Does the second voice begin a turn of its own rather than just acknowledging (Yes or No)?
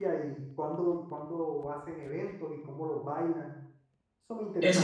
Yes